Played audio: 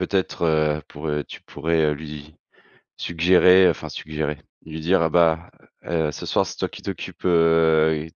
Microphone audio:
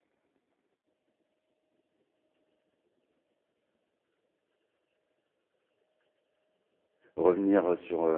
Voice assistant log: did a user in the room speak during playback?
Yes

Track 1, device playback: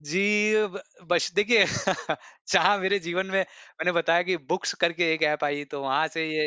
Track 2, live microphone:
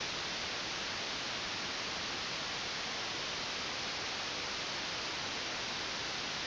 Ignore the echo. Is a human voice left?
No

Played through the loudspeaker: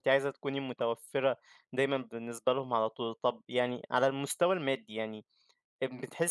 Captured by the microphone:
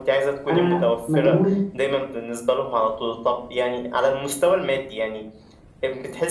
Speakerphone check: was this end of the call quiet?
No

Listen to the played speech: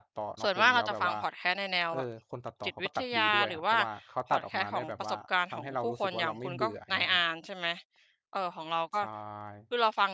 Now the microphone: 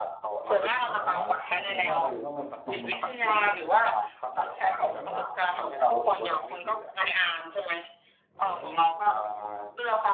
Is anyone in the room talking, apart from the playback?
Yes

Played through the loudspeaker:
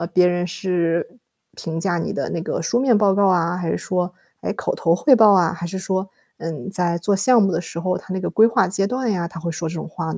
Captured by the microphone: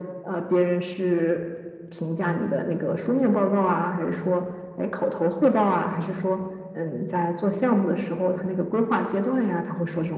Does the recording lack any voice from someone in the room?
Yes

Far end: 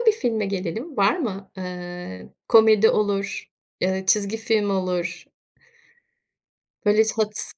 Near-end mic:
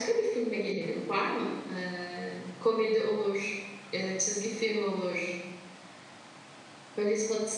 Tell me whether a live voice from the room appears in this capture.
No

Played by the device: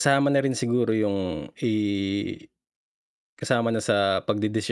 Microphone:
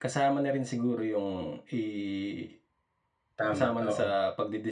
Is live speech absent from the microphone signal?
No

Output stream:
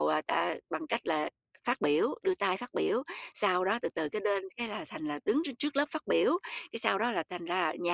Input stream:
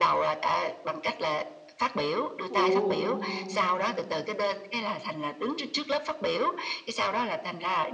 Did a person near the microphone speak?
Yes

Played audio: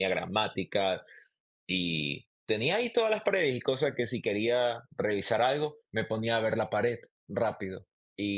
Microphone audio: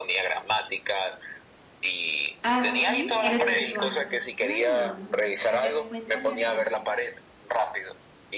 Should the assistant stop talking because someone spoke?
Yes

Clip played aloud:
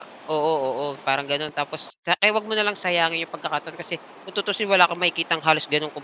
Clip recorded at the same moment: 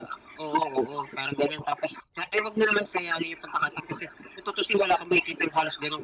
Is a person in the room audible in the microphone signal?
No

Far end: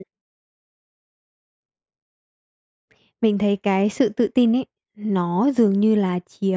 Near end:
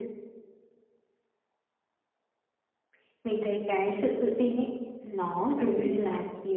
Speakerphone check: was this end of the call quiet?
No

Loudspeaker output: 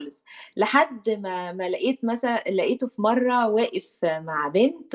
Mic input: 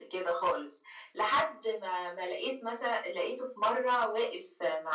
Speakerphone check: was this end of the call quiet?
Yes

